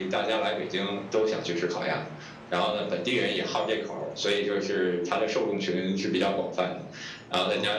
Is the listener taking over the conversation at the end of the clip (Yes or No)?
No